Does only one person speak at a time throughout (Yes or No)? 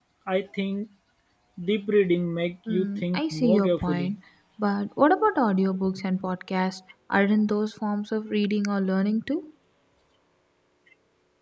No